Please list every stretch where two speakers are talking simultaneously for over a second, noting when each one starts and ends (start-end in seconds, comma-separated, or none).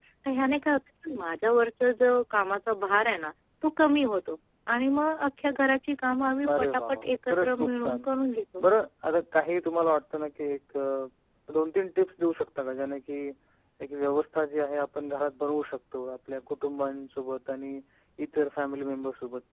6.6-8.0